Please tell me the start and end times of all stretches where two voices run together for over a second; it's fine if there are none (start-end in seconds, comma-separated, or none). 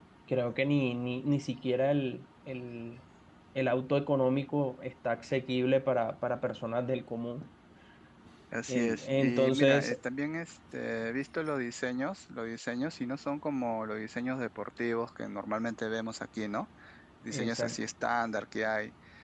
8.7-9.9